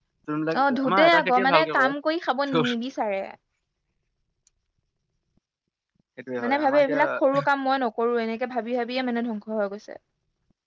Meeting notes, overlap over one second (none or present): present